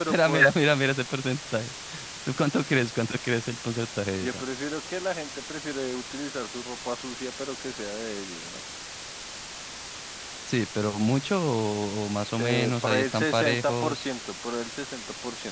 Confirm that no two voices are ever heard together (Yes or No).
No